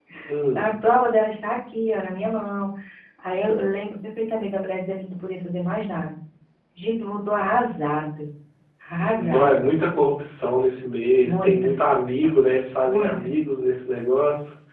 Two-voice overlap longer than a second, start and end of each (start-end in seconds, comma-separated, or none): none